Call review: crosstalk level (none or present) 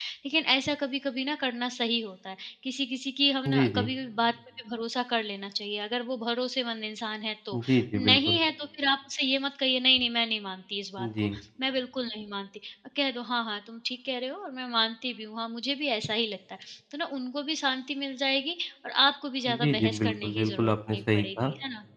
present